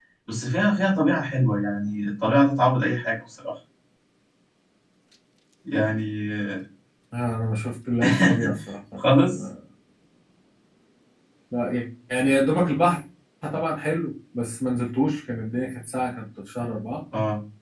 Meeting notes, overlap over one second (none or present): none